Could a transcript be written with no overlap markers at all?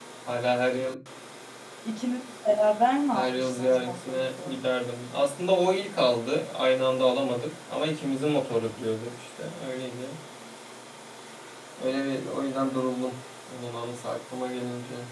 No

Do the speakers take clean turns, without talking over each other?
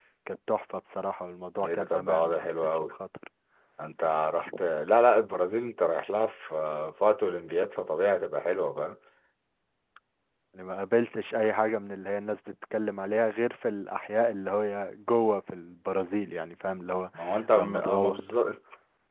No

